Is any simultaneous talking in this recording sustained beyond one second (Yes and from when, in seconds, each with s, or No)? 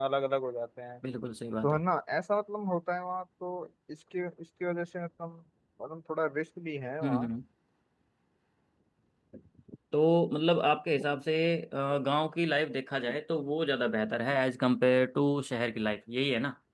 No